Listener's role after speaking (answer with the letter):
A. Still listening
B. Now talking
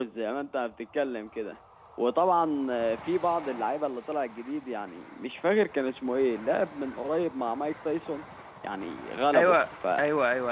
B